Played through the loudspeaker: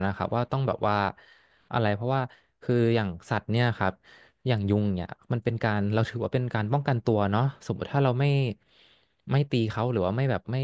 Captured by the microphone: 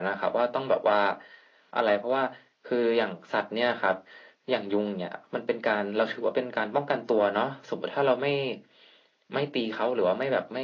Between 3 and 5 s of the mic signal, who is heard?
echo only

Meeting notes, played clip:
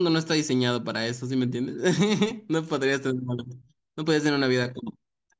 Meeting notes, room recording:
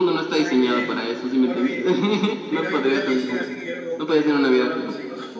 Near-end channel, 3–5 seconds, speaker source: both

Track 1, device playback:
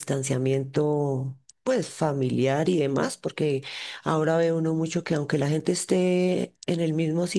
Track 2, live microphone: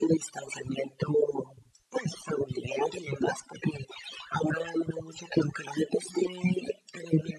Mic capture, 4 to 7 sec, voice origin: echo only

